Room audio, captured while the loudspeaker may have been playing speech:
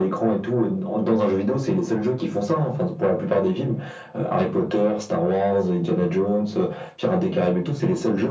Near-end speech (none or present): none